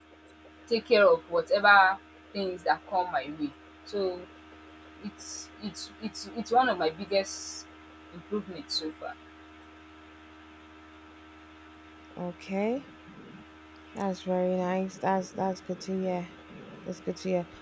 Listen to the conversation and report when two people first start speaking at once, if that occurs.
none

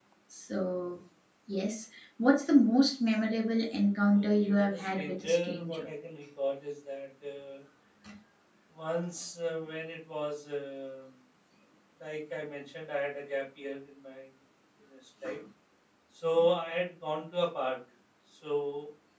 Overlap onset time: 4 s

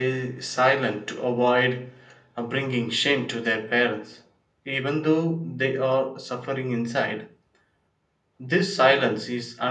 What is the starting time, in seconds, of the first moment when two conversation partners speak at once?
none

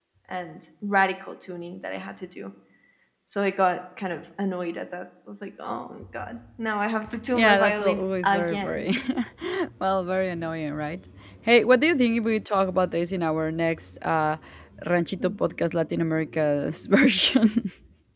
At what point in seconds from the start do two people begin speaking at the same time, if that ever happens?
7 s

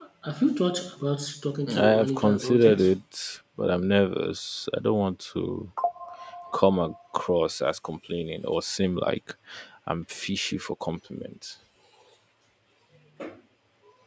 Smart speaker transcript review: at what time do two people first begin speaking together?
2 s

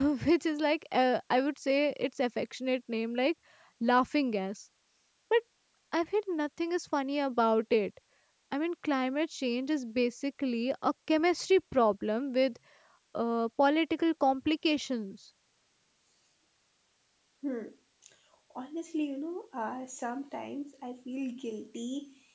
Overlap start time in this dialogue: none

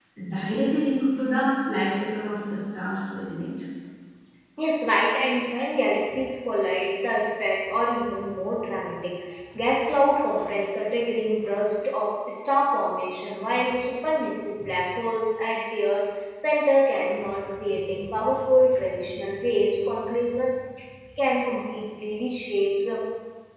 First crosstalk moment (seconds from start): none

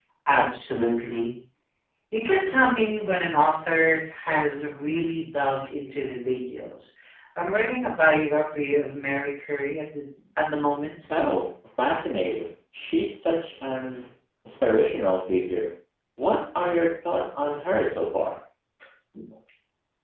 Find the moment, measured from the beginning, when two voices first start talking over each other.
none

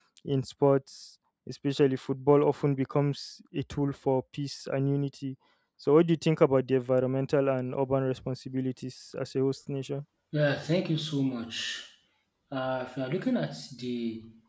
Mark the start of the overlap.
none

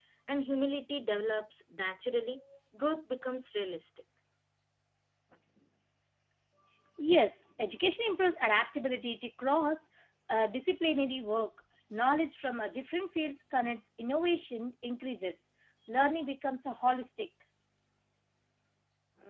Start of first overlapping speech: none

